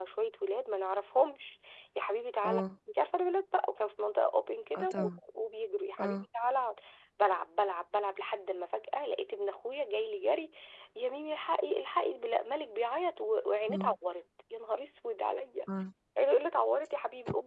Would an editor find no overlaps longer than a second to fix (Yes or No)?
Yes